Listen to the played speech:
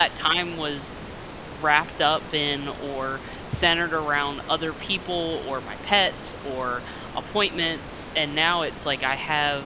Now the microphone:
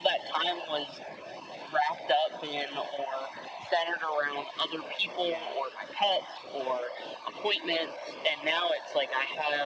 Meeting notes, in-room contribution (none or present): present